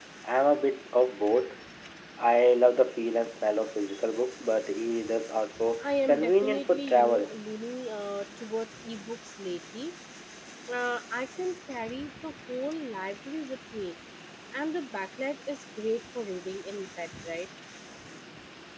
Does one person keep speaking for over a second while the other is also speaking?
Yes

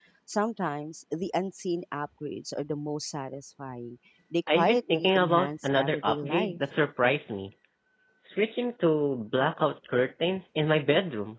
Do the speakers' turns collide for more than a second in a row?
Yes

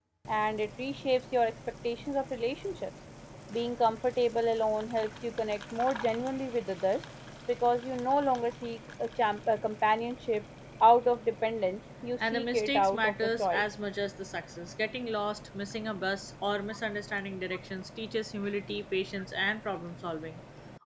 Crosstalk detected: Yes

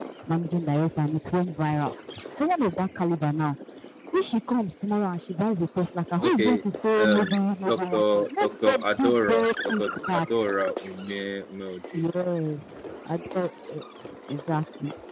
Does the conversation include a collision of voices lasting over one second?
Yes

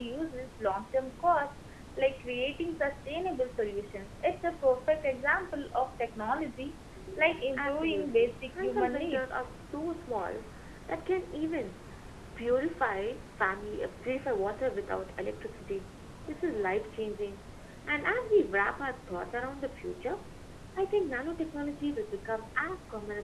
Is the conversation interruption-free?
No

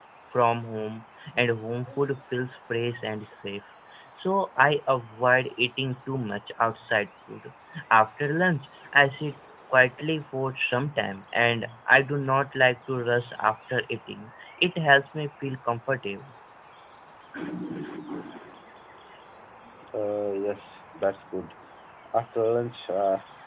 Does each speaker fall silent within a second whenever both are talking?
Yes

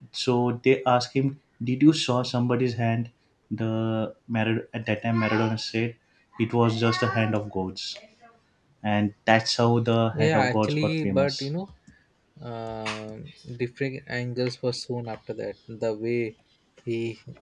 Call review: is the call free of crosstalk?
No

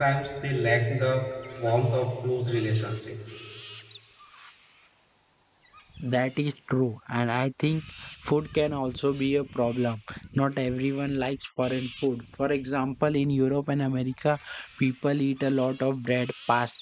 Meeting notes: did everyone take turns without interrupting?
Yes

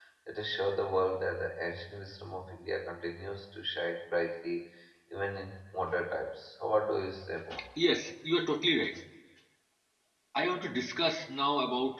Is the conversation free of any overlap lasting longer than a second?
Yes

